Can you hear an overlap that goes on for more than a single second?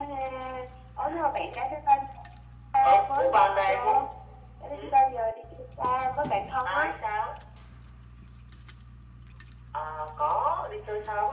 Yes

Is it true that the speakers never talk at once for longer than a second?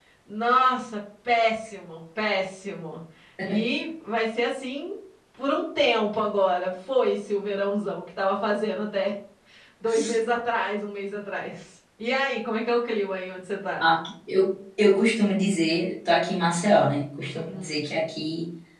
Yes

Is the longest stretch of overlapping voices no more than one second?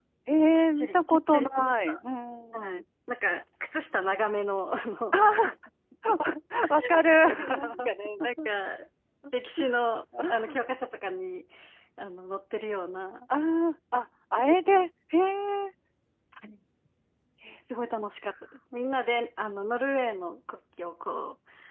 No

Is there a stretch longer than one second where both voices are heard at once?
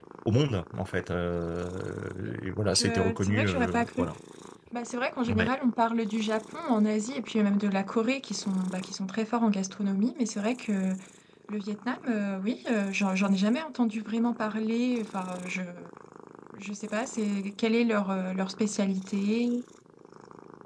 Yes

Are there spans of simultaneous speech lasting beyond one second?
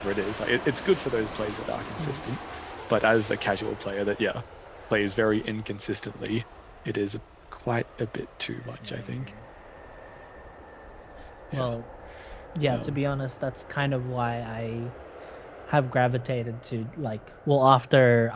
No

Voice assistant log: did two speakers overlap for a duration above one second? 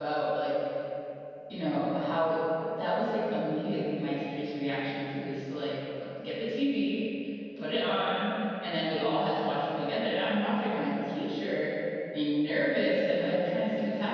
No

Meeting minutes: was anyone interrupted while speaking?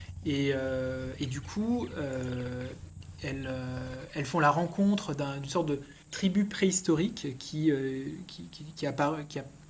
No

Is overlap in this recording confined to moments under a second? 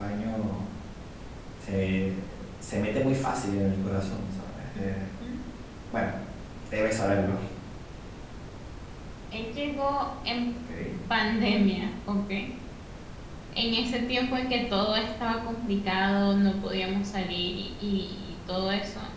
Yes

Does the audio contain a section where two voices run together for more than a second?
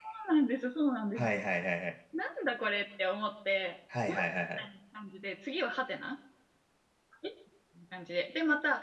No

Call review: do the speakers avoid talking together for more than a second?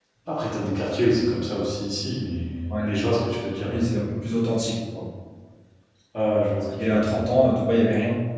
Yes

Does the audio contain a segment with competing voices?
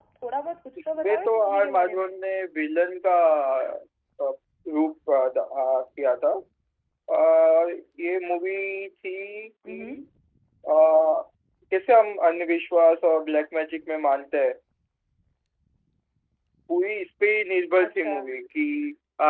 Yes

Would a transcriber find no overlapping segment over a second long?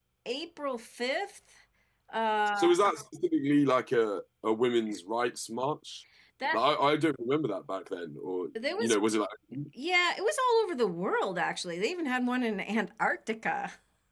Yes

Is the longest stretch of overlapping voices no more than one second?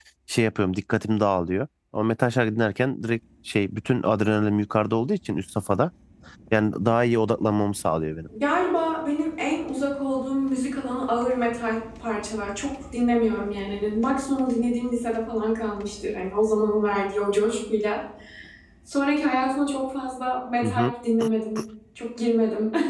Yes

